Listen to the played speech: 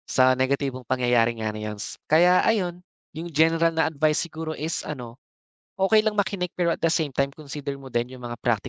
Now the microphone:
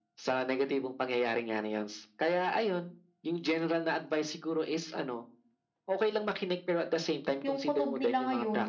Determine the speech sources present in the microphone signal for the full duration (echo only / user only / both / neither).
both